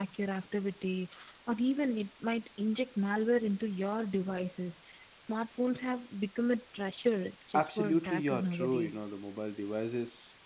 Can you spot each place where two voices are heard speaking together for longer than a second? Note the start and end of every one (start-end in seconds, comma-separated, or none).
7.5-9.0